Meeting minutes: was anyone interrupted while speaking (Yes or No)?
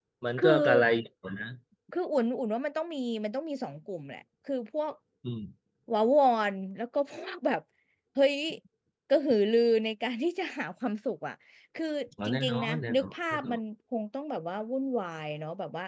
Yes